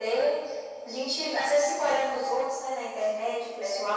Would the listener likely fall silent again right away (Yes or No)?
Yes